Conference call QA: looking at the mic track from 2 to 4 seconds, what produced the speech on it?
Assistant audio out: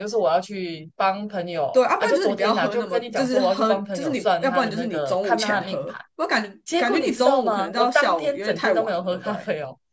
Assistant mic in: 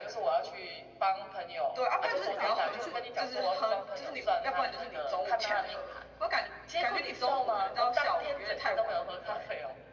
both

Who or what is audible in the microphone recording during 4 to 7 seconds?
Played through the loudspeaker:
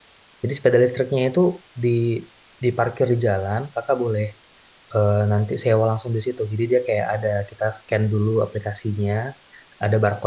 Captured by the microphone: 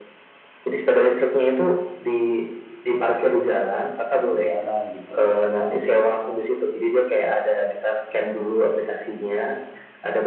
both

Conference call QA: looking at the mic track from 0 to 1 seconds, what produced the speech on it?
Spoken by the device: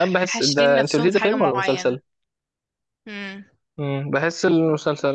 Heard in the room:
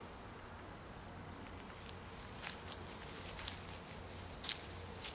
neither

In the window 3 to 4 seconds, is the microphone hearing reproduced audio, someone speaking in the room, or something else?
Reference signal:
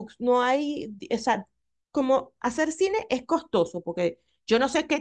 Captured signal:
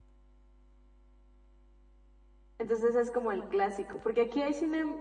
user only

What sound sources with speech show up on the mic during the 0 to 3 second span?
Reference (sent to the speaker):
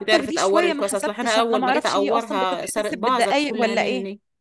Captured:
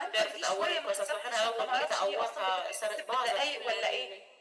echo only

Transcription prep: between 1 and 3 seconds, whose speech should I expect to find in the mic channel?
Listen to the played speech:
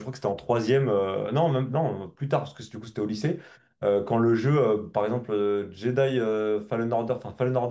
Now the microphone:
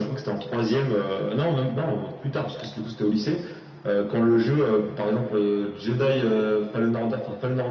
echo only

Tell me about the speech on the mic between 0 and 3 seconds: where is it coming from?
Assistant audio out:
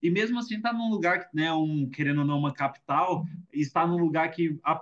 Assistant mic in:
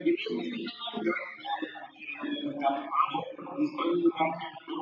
echo only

